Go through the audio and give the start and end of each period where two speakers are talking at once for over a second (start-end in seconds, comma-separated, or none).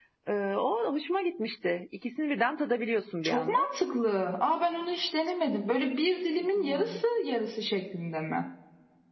none